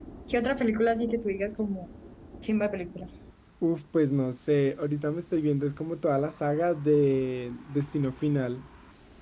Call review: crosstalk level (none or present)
none